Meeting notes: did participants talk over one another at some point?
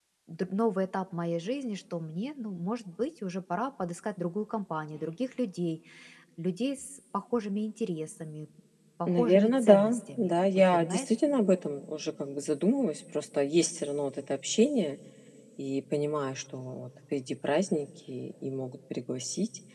Yes, from 9.1 s

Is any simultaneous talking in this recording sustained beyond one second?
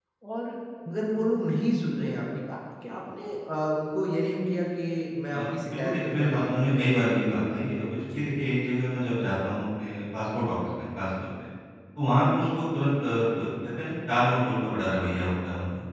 Yes, from 5.3 s

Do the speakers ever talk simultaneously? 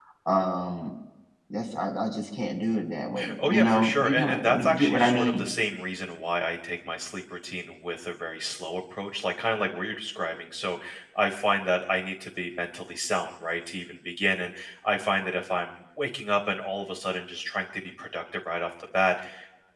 Yes, from 3.2 s

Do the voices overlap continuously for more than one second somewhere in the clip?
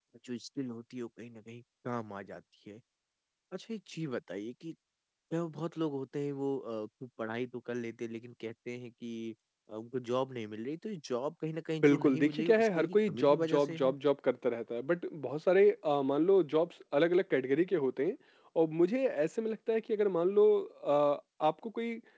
Yes, from 11.8 s

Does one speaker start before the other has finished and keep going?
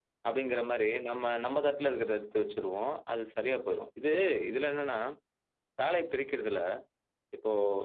No

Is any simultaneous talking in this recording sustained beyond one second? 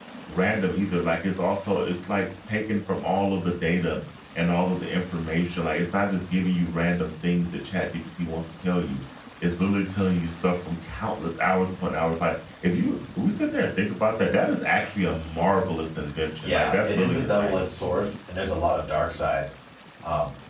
Yes, from 16.4 s

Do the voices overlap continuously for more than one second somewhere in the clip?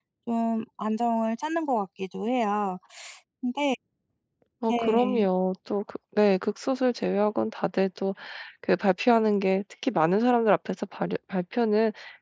No

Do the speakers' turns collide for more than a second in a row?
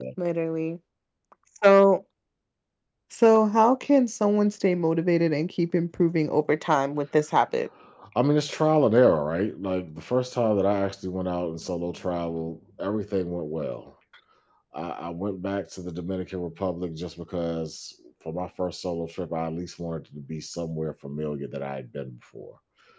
No

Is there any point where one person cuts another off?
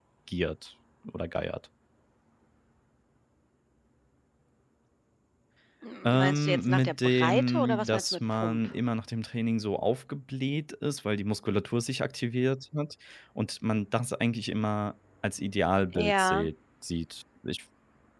Yes, from 6.0 s

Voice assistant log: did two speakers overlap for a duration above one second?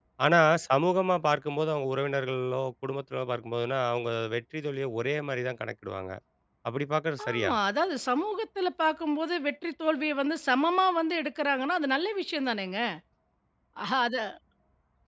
No

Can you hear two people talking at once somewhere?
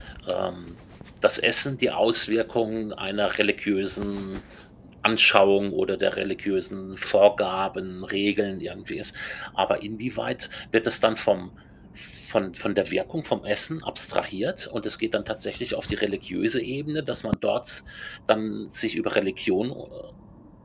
No

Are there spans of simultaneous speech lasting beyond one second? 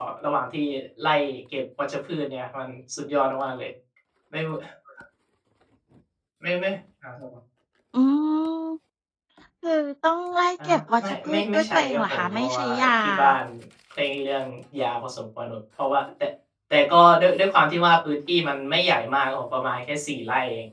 Yes, from 10.6 s

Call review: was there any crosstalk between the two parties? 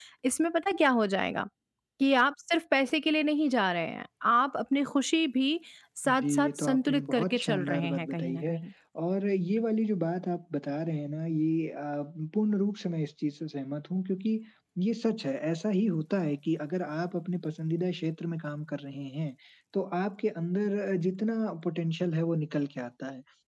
Yes, from 6.1 s

